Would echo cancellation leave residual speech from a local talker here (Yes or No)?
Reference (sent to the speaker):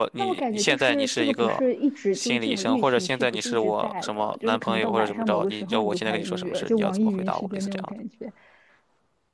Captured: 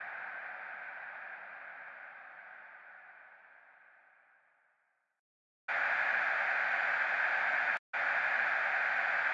No